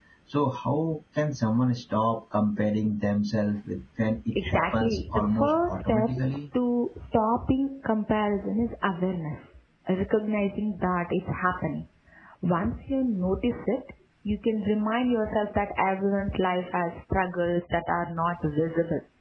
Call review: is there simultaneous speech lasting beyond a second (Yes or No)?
Yes